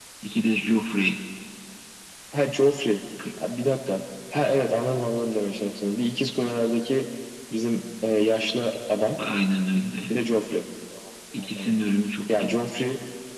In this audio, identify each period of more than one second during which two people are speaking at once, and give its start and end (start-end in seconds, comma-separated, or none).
none